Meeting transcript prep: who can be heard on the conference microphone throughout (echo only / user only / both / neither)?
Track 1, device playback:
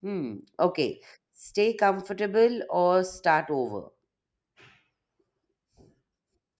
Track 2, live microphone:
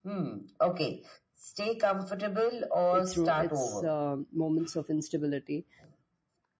both